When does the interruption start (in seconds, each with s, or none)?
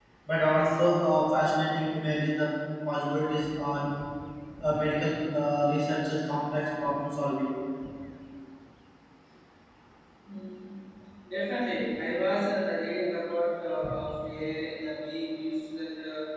none